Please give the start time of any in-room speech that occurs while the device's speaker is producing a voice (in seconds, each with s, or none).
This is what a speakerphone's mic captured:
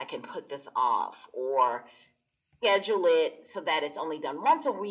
none